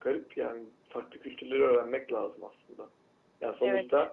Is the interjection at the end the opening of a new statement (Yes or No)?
No